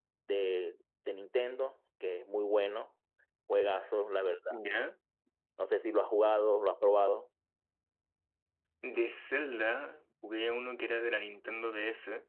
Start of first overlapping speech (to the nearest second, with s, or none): none